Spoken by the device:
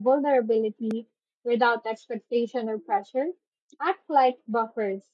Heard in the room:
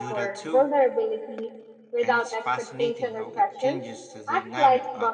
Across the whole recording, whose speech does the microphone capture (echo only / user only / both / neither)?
both